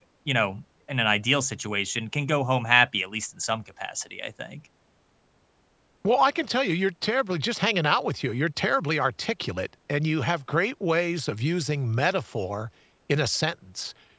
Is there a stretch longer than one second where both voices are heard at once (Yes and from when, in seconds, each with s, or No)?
No